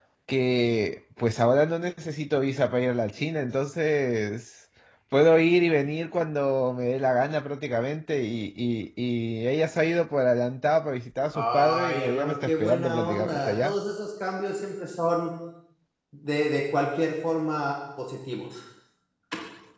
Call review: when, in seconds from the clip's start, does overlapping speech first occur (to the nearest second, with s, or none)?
11 s